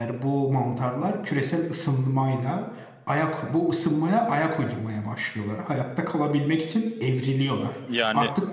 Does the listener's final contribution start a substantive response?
No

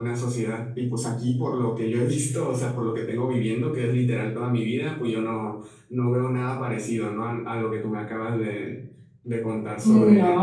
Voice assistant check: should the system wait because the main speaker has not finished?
No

